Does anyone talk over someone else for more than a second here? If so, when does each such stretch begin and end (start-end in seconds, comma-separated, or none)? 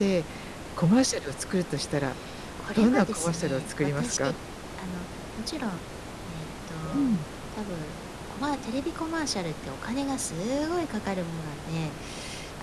2.8-4.3